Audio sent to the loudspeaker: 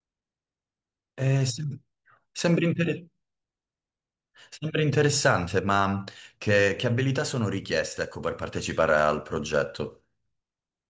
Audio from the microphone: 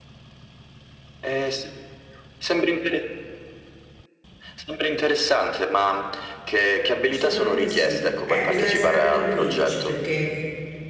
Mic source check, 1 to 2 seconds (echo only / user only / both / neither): echo only